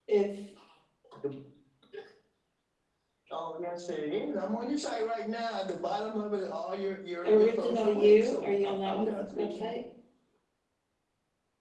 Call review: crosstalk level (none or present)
present